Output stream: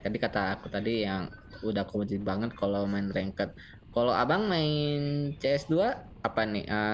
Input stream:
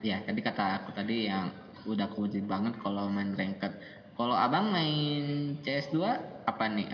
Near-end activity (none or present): none